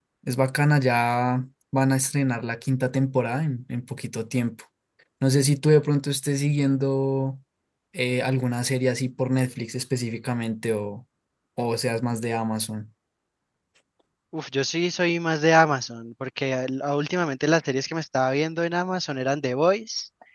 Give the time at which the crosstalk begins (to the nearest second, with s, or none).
none